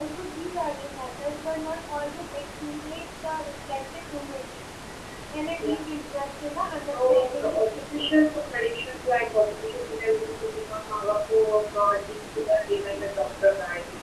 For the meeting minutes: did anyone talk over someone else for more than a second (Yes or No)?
Yes